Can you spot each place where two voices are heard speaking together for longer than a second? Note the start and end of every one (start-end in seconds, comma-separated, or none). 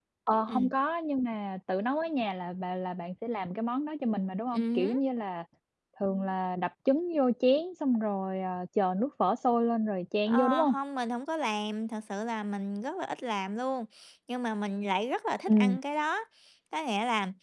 none